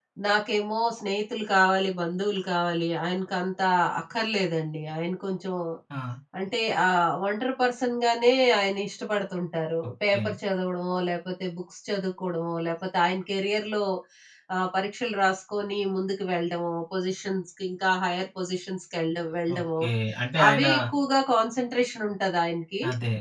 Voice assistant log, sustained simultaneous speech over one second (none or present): none